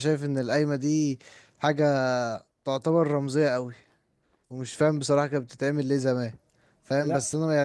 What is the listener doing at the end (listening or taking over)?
listening